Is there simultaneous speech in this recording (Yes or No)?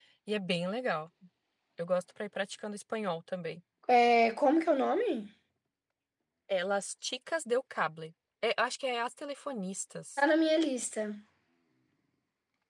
No